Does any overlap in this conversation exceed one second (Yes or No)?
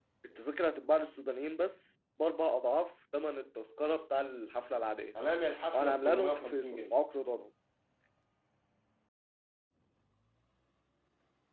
Yes